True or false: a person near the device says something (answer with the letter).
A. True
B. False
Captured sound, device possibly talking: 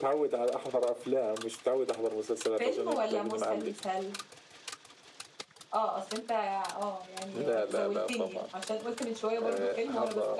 A